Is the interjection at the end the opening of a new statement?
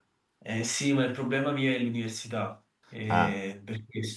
No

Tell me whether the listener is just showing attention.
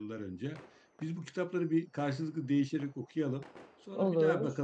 Yes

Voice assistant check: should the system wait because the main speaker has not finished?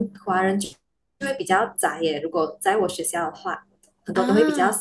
Yes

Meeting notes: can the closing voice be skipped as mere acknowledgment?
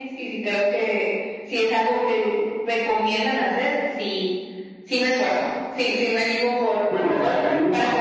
No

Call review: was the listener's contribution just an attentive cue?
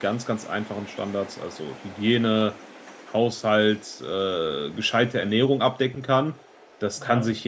Yes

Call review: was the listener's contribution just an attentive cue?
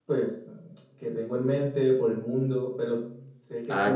No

